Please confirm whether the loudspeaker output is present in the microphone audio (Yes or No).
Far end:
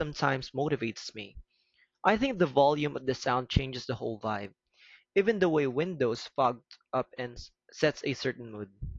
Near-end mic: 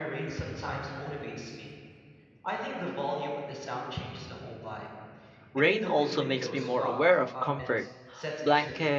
Yes